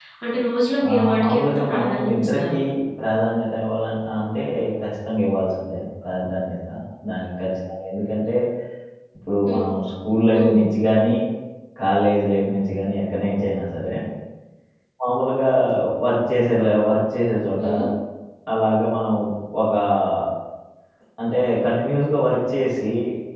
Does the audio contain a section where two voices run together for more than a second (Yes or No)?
Yes